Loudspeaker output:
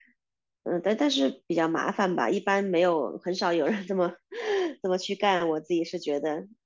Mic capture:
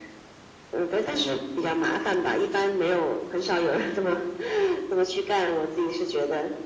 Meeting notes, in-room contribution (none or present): none